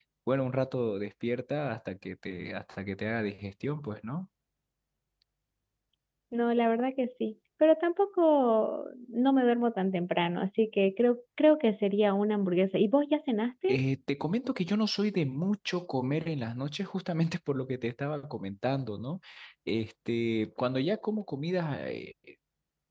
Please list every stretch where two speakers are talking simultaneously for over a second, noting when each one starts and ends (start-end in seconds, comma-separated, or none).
none